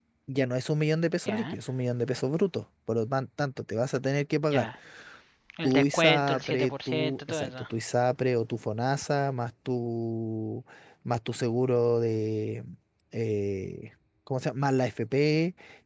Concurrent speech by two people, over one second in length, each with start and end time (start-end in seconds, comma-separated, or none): 5.6-7.7